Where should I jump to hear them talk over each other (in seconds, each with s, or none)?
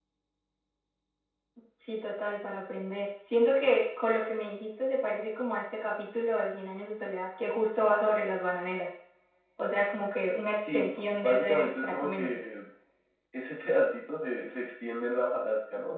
10.6 s